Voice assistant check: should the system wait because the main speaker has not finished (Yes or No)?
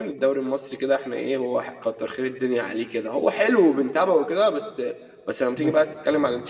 Yes